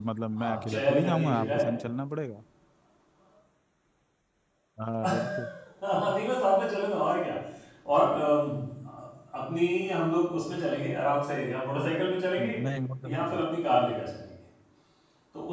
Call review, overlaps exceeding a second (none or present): present